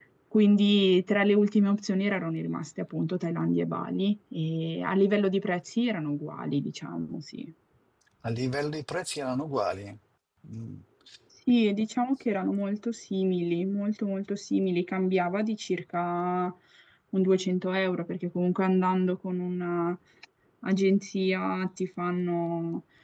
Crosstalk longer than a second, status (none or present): none